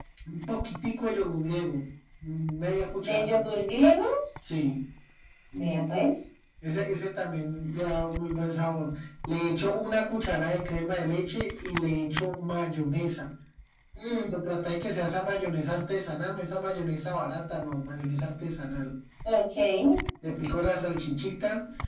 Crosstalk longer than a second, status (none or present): none